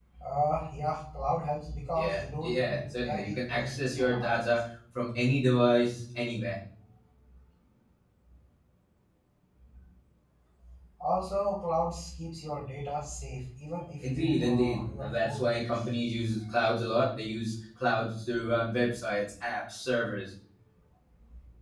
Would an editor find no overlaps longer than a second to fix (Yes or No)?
No